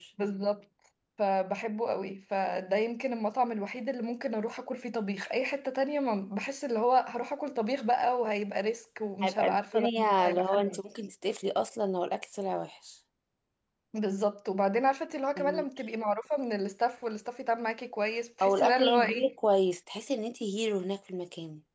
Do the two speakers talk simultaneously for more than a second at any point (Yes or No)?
Yes